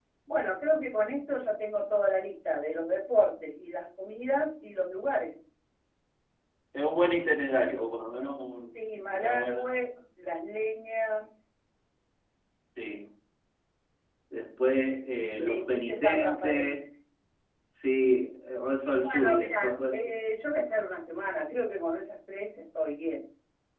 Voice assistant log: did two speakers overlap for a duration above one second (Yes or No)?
Yes